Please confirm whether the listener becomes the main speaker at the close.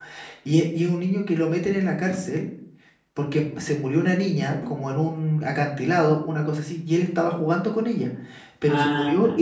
No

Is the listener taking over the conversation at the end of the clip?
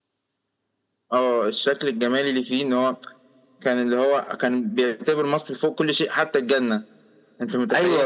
Yes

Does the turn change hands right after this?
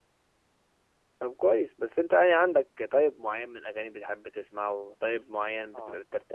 No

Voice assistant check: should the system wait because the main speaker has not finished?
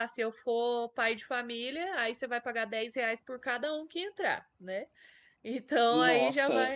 Yes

